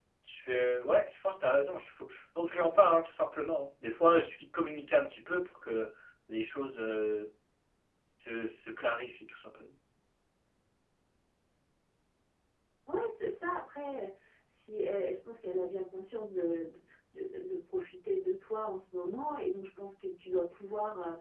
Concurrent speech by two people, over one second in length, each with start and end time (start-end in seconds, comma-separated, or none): none